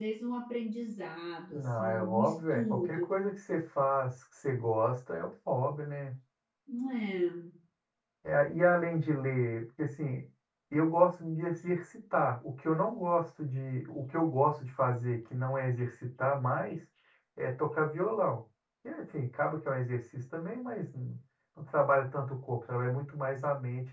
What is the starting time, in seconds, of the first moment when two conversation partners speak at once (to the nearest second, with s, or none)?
2 s